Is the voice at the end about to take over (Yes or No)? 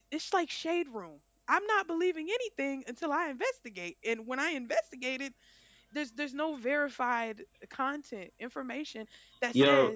No